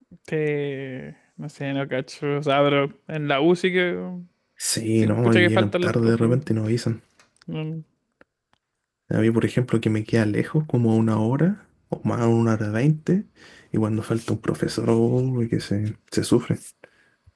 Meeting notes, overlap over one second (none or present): present